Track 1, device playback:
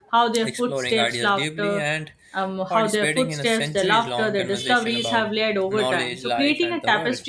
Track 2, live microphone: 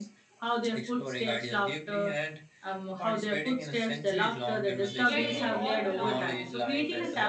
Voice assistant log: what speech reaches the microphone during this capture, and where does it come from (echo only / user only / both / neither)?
both